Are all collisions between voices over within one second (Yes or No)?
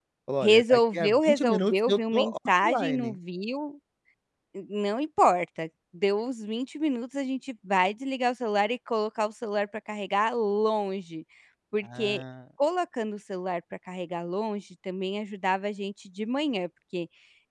No